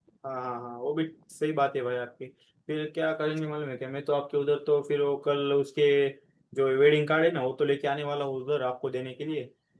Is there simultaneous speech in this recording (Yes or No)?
No